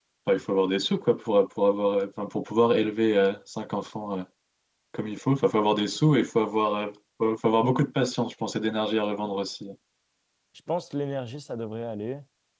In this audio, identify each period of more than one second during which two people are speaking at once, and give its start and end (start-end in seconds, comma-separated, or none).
none